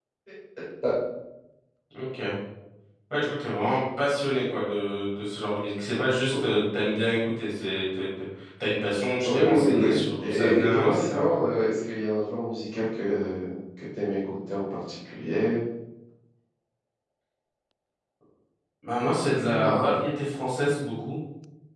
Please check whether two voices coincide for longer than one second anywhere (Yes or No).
Yes